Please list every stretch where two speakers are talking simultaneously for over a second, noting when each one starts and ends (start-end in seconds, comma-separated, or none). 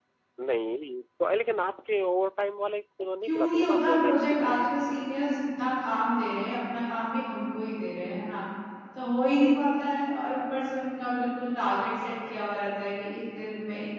3.2-4.5